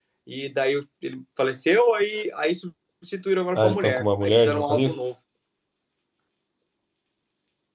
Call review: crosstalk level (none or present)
present